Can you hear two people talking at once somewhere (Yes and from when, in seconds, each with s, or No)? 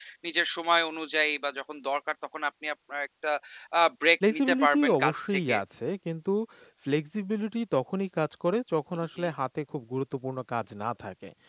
Yes, from 4.3 s